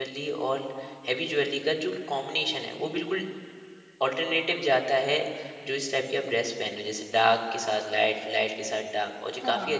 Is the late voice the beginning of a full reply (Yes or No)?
No